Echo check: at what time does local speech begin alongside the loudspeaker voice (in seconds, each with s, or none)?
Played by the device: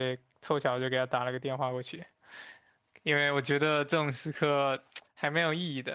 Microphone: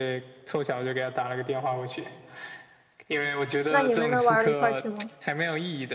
3.7 s